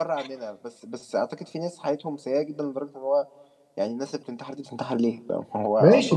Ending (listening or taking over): taking over